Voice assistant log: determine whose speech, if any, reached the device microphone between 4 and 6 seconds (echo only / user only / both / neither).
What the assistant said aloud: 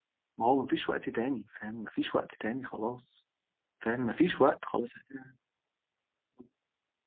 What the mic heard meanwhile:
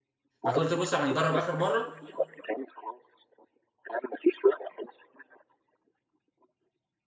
echo only